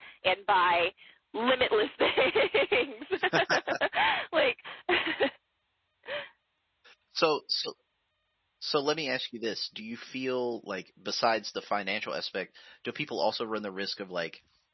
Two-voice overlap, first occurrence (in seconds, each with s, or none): none